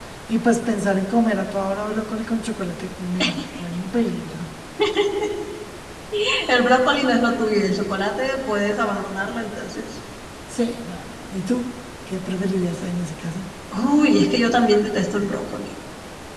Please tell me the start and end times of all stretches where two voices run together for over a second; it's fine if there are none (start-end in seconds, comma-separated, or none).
none